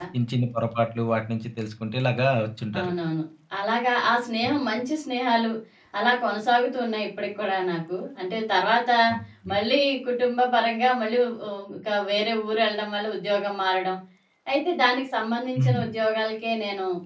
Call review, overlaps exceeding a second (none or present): none